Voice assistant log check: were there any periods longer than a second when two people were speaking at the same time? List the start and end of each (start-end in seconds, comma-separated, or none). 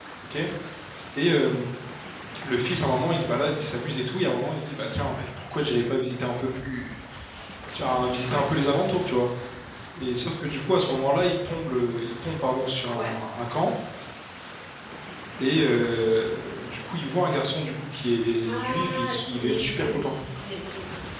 18.5-20.2